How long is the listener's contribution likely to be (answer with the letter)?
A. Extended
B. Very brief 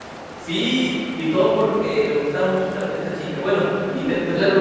A